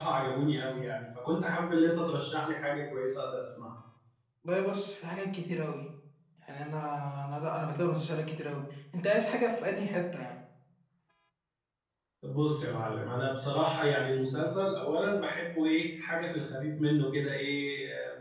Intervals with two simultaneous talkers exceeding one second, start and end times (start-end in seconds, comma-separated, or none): none